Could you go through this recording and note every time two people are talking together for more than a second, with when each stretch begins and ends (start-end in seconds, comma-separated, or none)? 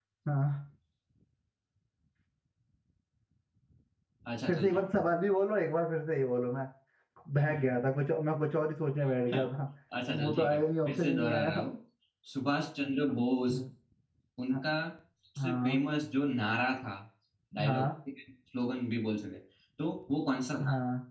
10.1-11.6